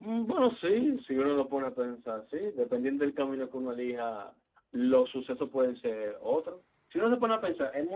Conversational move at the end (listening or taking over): listening